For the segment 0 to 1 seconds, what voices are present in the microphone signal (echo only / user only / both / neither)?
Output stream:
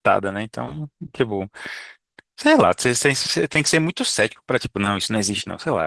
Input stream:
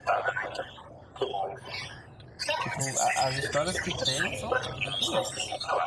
echo only